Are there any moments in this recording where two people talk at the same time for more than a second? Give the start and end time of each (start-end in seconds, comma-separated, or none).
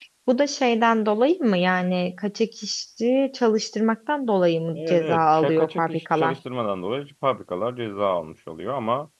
4.8-6.3